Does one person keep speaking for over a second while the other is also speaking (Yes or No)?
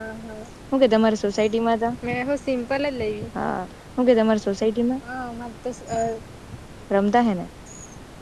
No